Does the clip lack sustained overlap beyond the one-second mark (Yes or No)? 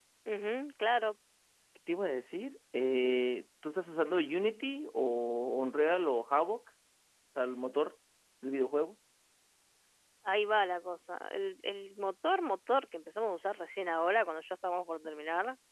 Yes